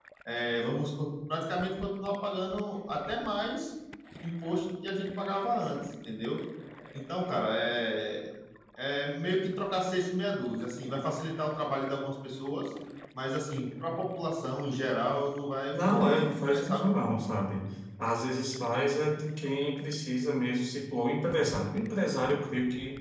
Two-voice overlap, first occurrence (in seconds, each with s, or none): 15.7 s